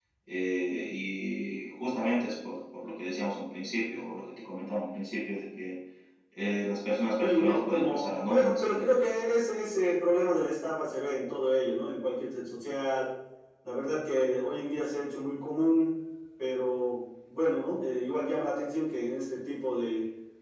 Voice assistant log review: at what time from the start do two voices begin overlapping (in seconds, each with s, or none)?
7.2 s